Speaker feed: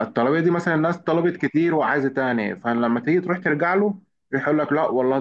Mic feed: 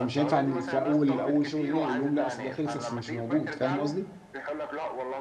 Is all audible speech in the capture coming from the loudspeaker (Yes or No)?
No